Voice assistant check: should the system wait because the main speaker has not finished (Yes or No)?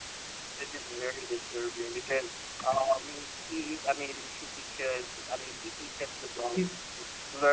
Yes